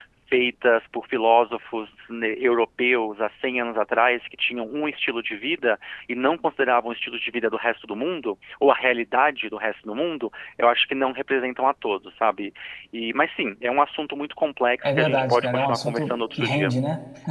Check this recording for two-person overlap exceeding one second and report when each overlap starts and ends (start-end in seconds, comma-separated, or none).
14.8-16.7